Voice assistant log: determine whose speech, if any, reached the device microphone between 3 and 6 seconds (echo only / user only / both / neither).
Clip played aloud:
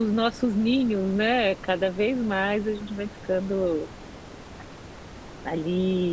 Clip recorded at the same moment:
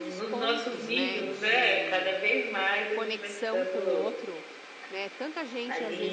both